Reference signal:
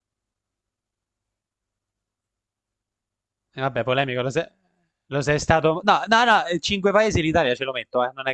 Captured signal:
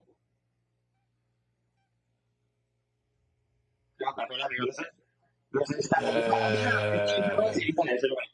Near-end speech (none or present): present